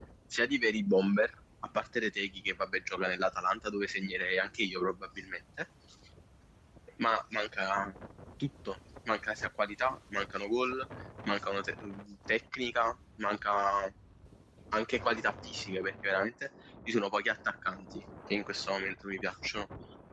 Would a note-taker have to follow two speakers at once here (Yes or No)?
No